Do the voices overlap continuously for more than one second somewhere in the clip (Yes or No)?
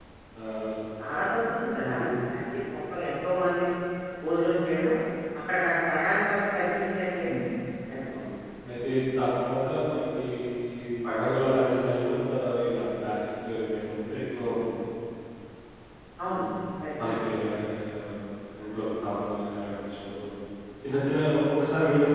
No